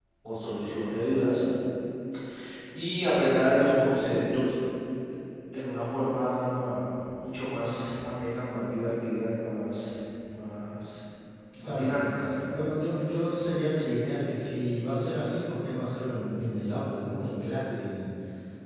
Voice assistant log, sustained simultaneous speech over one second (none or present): none